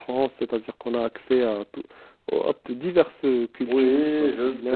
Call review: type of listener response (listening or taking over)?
taking over